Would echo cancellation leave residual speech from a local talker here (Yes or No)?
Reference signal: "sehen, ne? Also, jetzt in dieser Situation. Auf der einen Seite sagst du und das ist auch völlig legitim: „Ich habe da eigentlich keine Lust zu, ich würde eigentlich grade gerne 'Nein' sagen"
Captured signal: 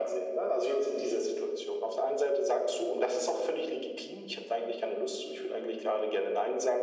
No